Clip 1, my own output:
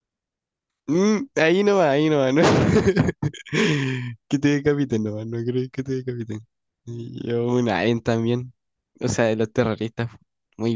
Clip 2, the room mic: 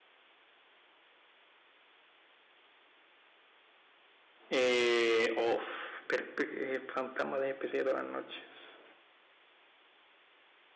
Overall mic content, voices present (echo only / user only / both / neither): user only